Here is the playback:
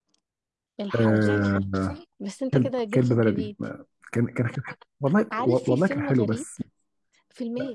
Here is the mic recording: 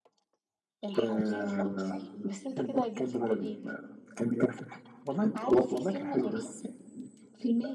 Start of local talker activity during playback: none

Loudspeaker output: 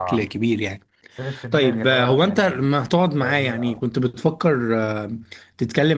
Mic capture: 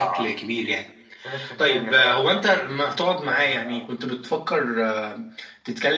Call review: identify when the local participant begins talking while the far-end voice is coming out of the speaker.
none

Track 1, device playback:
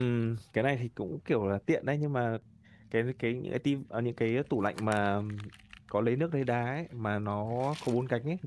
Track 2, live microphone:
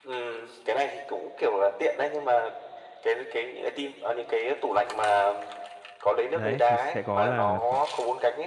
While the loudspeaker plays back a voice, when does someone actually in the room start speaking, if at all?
6.3 s

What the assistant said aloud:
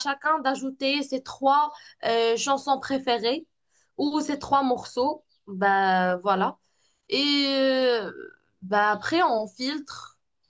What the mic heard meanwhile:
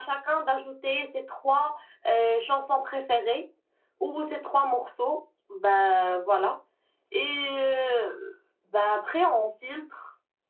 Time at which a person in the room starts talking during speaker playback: none

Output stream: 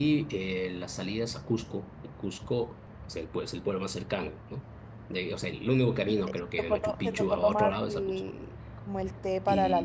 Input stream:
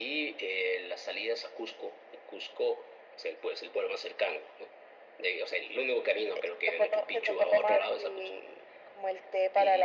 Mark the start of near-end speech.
none

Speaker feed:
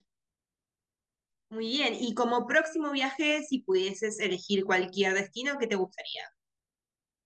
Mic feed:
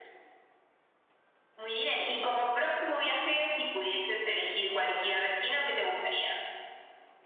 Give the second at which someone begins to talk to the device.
none

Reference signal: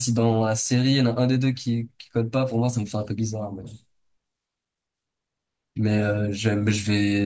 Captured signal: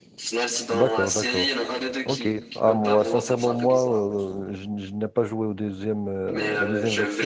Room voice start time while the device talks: 0.7 s

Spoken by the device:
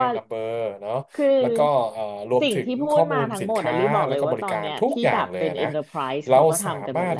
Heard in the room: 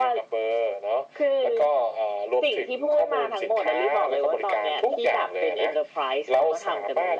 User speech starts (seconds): none

